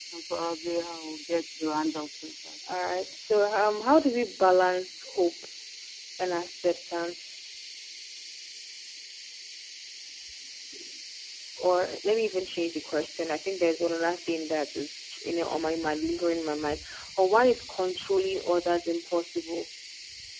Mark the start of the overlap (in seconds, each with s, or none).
none